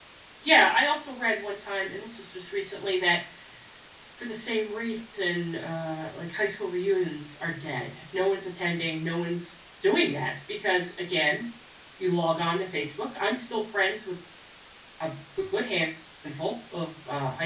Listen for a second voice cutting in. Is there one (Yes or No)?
No